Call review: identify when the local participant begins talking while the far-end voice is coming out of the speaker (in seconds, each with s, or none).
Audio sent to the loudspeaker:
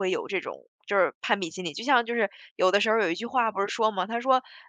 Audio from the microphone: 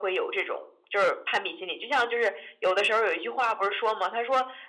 none